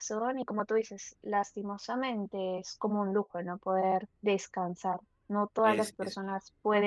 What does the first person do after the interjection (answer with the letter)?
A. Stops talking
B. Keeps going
B